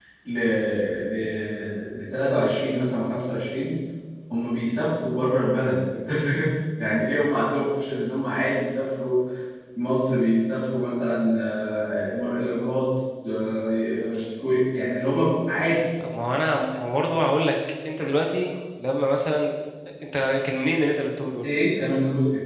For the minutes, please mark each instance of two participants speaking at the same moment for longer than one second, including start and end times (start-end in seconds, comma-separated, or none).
none